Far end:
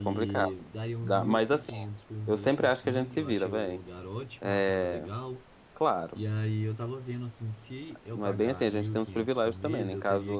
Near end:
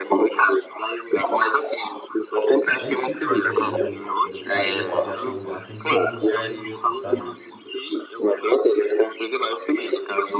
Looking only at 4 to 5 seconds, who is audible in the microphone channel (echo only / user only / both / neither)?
both